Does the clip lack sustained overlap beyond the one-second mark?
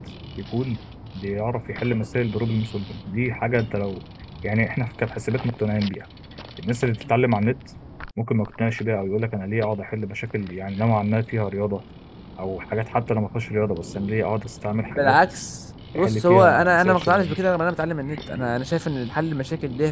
No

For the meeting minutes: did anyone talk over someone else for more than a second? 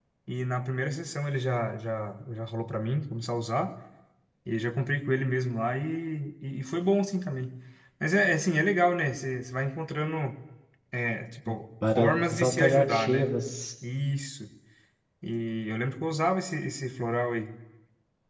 Yes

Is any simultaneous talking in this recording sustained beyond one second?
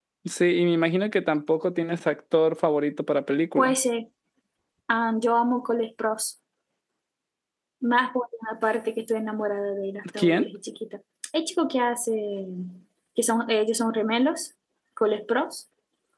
No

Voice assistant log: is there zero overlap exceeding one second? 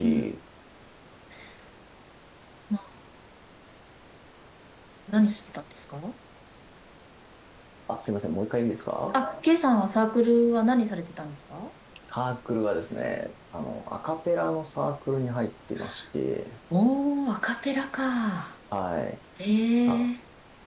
Yes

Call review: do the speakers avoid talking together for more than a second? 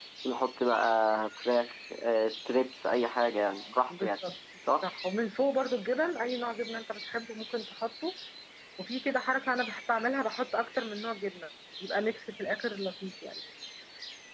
Yes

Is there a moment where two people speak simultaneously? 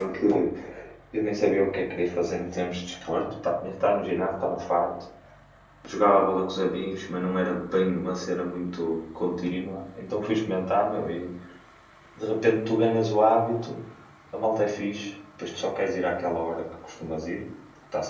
No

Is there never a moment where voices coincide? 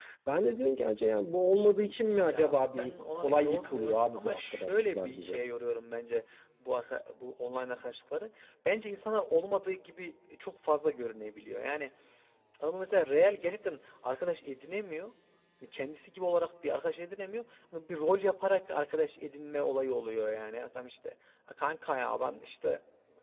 No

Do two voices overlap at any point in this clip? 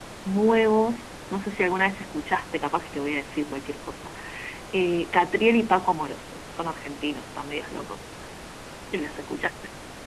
No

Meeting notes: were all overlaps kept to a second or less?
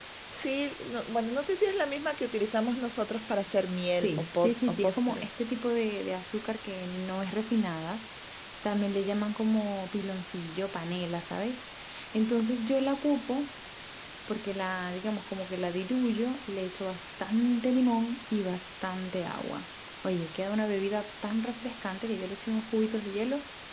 No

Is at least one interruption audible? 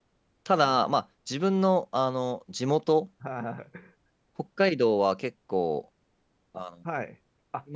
No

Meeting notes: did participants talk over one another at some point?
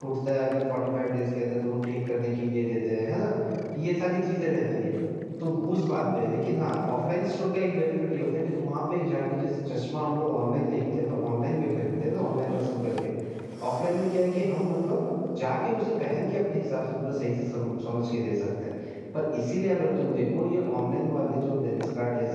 No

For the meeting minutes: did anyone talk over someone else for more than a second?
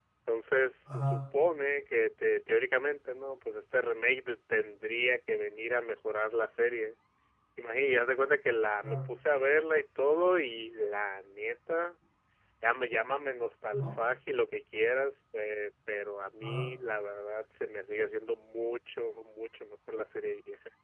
No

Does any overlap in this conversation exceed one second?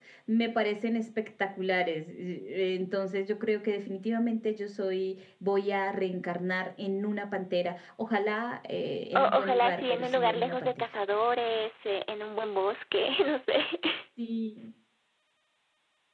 Yes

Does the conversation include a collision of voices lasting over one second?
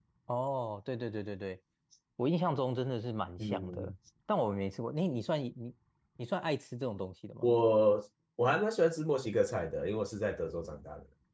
No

